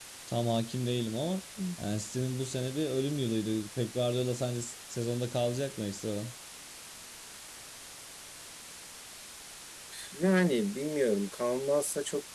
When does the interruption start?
none

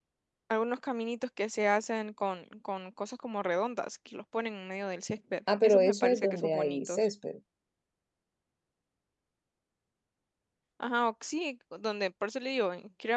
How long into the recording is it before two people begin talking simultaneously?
5 s

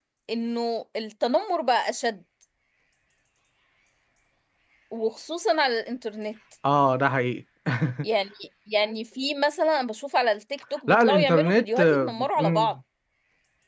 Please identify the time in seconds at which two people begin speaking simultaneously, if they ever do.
11 s

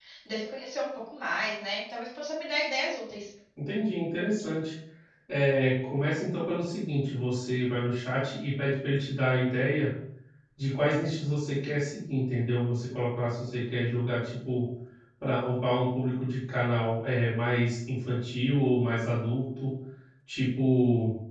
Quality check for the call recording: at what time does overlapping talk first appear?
none

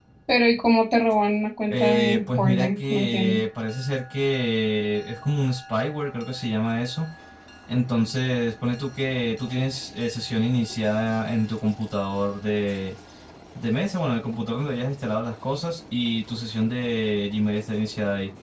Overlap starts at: 2 s

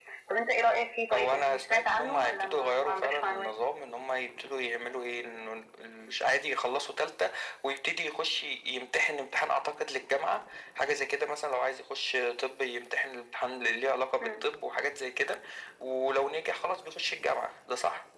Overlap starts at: 1 s

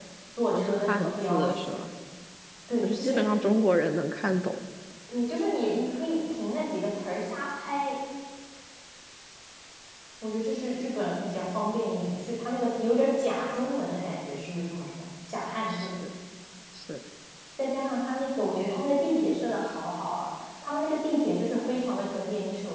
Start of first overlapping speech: 1 s

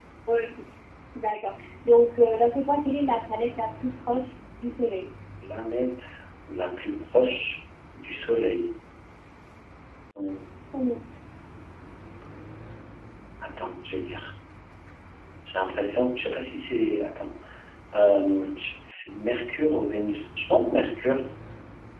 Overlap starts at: none

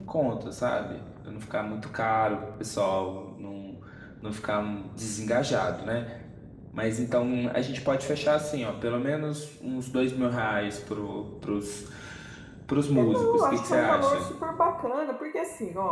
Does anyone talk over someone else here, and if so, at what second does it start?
13 s

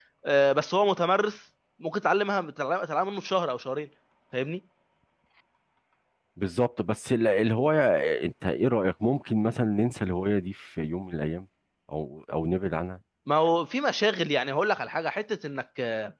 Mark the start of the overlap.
none

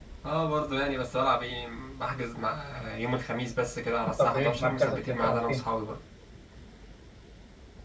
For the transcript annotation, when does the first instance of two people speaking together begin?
4 s

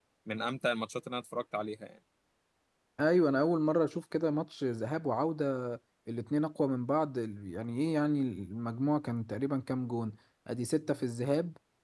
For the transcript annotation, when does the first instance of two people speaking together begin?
none

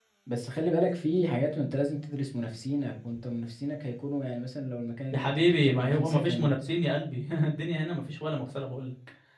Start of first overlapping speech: 5 s

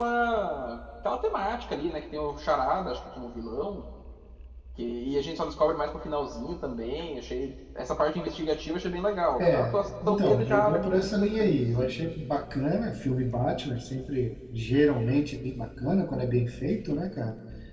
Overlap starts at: 9 s

